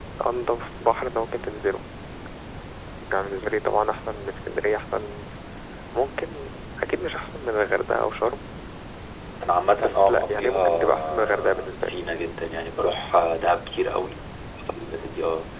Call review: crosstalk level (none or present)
present